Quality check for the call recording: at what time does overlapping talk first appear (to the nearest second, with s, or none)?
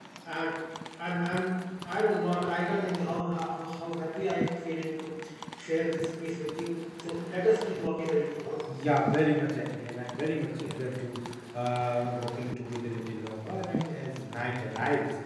none